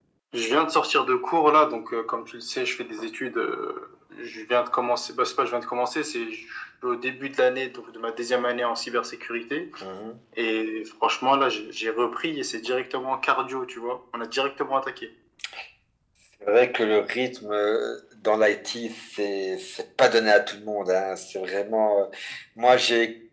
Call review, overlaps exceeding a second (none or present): none